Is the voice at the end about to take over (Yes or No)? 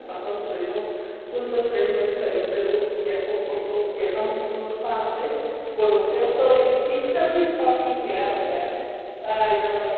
Yes